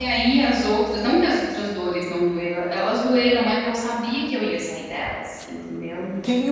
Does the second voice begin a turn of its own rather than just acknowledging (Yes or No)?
Yes